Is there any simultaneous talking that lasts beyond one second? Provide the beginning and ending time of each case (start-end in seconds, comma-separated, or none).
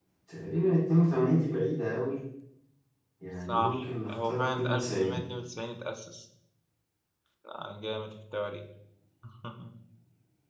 3.5-5.2